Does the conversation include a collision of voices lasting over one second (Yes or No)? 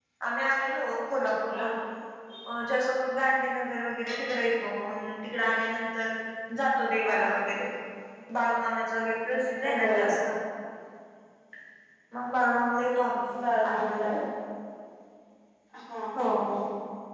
No